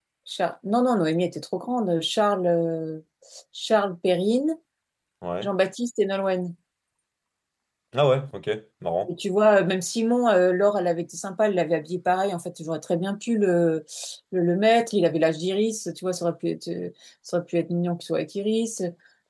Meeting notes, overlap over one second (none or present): none